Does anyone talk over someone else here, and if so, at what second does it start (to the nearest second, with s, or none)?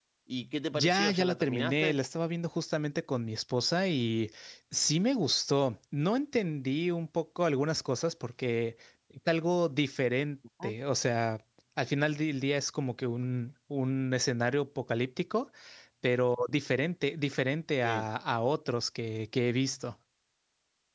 1 s